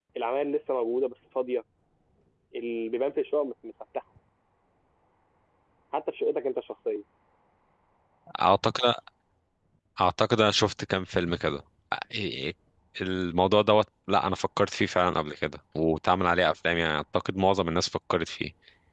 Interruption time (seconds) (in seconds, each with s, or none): none